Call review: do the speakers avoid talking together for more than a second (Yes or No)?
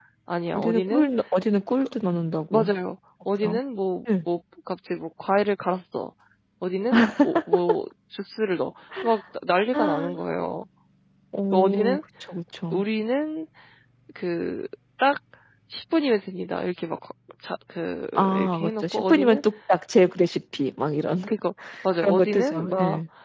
No